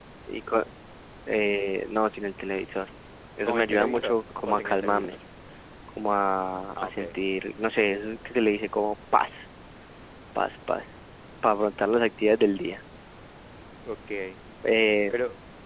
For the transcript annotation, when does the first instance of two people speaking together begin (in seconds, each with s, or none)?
3.4 s